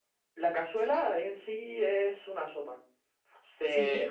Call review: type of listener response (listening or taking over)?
listening